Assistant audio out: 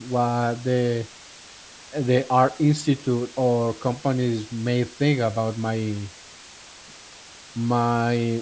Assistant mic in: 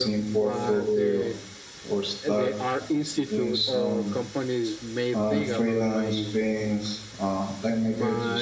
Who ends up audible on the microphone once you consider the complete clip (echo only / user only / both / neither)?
both